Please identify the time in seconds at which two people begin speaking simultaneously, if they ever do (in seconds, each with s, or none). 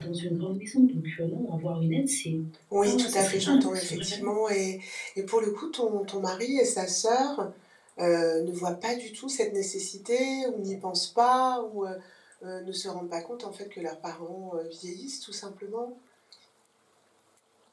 2.9 s